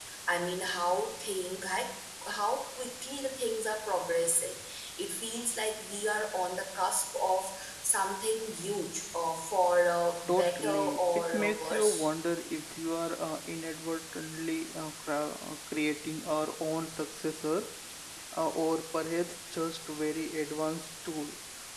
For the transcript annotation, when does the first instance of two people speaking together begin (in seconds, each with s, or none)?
10.3 s